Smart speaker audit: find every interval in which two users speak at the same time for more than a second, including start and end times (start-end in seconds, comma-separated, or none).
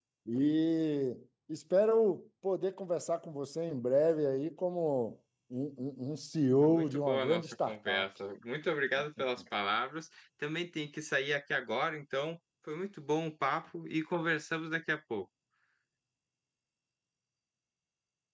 6.6-8.0